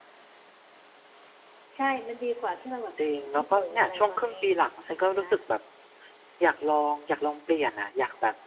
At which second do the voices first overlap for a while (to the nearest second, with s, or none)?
3 s